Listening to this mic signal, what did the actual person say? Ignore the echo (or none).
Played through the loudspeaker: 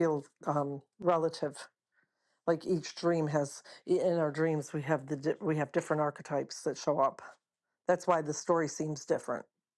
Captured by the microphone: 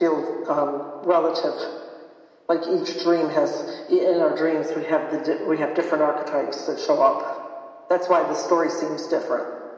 none